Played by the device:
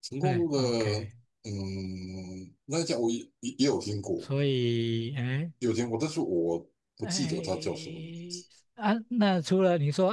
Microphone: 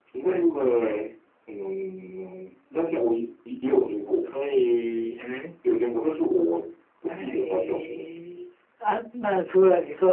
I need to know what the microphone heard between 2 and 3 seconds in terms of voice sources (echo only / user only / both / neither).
echo only